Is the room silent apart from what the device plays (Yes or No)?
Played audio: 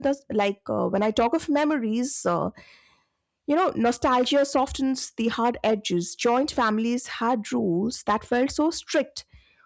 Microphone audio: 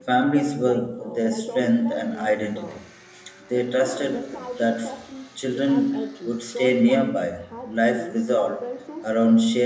No